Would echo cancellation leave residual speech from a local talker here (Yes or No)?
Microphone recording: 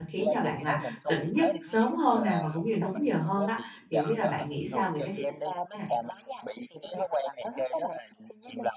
Yes